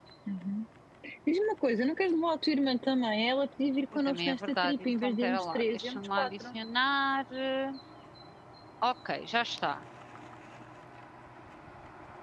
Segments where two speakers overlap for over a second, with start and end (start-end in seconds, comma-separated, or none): 4.1-6.6